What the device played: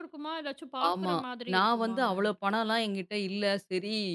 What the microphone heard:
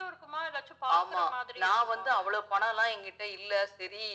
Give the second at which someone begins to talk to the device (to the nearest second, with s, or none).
none